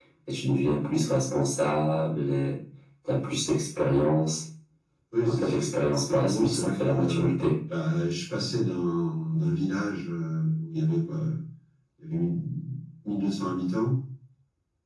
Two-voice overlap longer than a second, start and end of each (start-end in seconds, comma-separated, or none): 6.1-7.3